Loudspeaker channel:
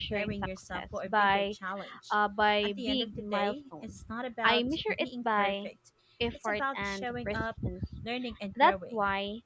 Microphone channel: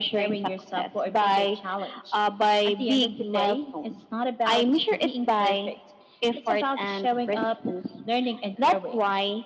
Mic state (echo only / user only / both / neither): echo only